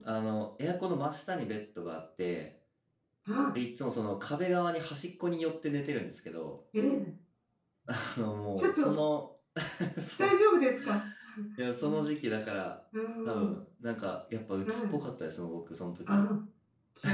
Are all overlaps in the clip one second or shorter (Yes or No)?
Yes